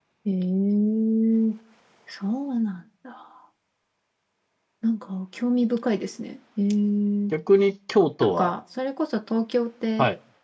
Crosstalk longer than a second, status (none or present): none